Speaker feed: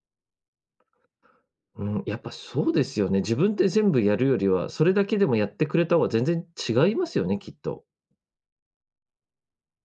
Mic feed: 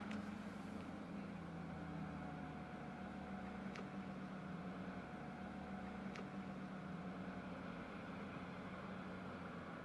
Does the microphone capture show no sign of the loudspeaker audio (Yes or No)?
Yes